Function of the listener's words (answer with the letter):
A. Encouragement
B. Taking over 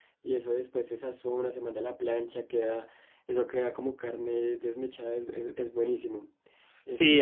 B